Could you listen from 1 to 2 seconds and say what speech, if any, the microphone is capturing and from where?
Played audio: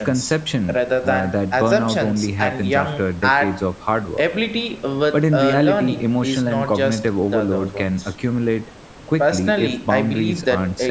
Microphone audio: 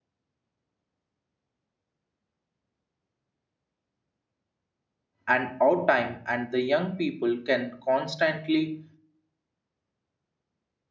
neither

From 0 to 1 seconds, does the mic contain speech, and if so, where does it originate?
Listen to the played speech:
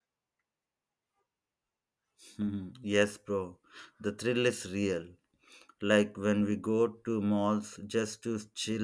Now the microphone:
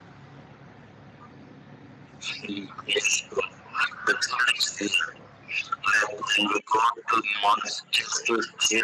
neither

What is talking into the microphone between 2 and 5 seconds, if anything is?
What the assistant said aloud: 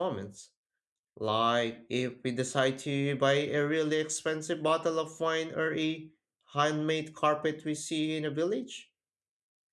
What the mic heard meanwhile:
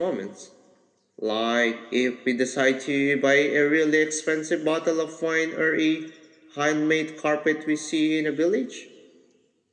echo only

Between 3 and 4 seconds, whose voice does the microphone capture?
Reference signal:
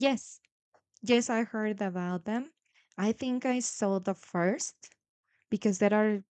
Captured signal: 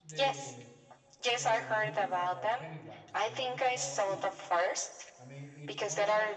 both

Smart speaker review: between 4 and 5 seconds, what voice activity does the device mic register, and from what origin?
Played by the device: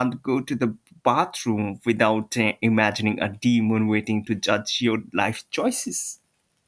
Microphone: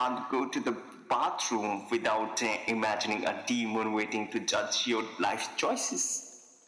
echo only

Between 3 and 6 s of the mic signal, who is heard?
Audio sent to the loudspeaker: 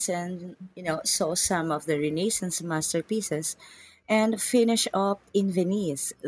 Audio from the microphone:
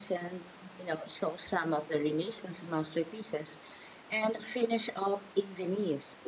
echo only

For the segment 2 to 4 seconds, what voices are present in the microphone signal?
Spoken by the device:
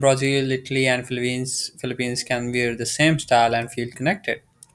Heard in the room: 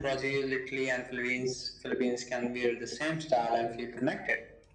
echo only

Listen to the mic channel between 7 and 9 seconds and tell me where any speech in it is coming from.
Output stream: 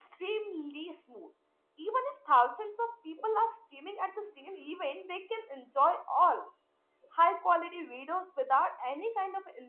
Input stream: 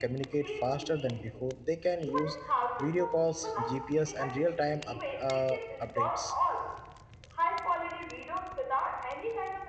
echo only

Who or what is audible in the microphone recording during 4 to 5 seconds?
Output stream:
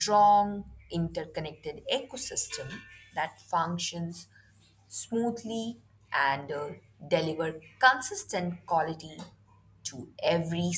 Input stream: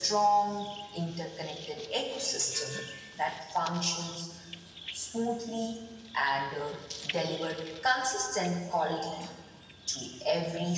echo only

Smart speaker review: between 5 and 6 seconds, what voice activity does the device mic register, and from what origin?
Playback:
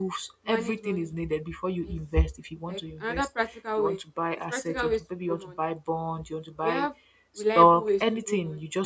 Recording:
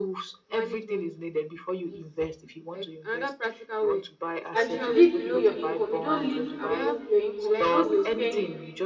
both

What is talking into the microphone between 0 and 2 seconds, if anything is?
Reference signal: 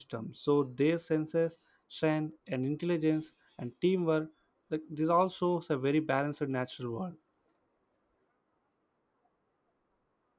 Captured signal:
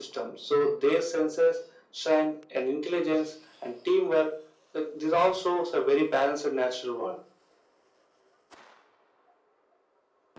echo only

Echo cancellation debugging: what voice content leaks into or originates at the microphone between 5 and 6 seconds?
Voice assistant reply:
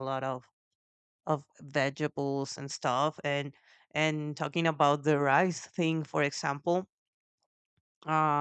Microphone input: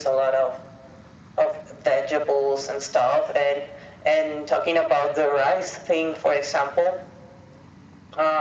echo only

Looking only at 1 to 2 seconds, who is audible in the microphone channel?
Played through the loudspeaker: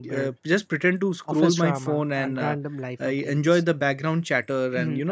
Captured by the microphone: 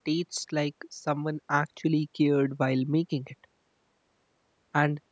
user only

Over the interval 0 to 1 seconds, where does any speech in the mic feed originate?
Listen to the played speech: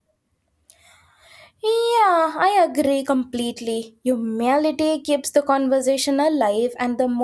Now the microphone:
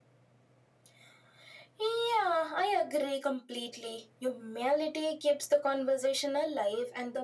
neither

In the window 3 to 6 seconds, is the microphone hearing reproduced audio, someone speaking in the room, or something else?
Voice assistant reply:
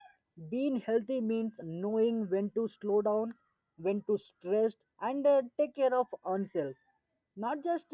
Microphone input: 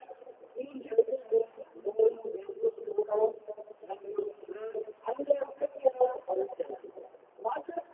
echo only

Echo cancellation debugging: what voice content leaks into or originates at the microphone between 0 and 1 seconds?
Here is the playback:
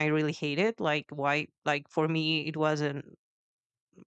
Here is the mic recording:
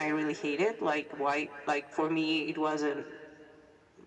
echo only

